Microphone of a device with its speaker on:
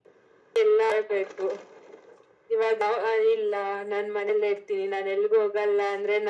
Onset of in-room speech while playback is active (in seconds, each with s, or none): none